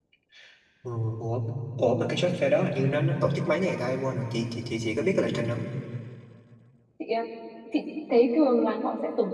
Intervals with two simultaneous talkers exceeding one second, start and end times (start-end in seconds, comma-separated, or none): none